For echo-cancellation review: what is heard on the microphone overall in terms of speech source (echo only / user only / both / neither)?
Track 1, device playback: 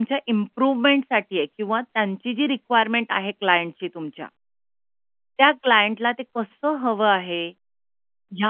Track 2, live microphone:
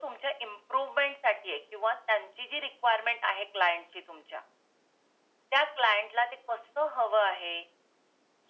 echo only